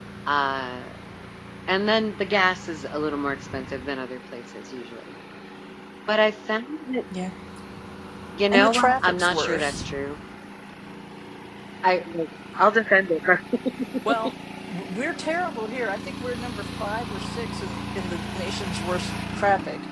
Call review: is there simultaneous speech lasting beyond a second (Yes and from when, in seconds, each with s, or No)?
Yes, from 8.5 s